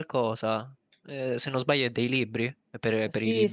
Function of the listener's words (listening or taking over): taking over